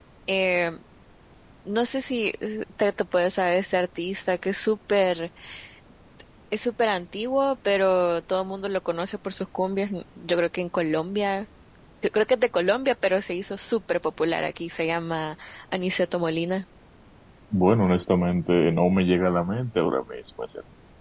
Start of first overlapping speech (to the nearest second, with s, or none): none